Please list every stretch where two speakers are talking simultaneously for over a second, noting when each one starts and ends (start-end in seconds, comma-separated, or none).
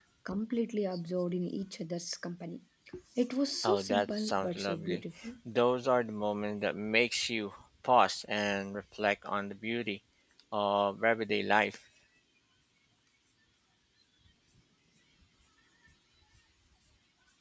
3.6-5.0